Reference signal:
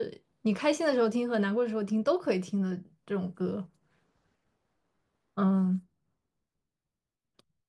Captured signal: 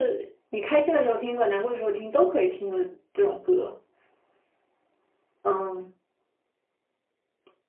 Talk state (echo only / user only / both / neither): echo only